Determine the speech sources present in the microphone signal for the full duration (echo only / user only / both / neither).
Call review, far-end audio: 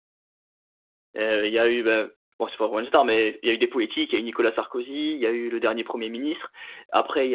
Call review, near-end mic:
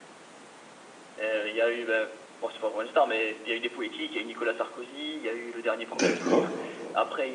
both